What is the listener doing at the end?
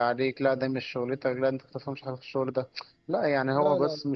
listening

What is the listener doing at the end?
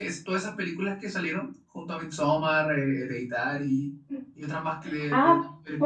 taking over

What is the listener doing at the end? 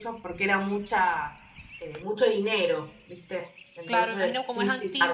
taking over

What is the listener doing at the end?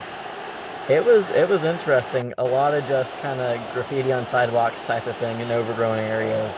listening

